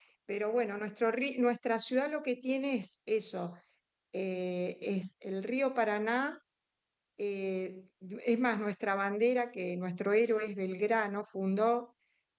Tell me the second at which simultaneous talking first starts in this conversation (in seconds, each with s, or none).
none